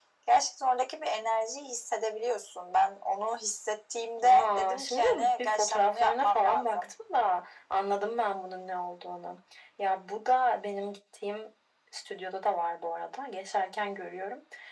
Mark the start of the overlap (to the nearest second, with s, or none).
4 s